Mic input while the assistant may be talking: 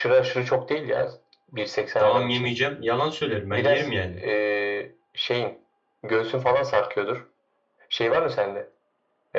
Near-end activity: present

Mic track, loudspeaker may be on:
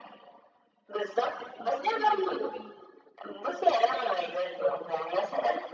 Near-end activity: present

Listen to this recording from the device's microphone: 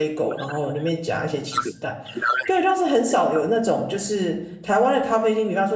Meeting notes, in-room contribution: present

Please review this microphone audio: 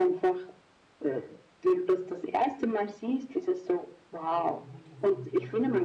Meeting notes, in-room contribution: present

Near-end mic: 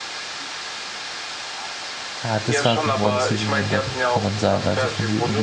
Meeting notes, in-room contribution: present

